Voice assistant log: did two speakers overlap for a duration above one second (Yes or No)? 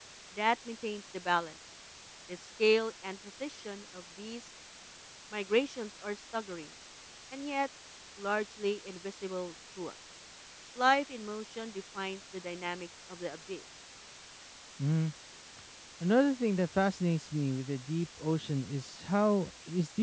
No